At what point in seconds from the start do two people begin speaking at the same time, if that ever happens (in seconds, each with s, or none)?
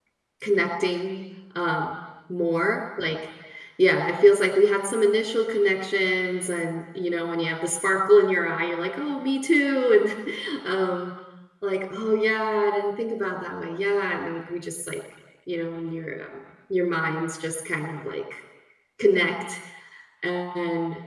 none